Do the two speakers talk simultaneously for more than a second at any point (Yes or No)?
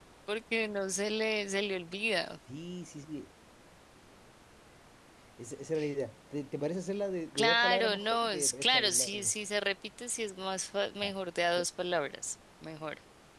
Yes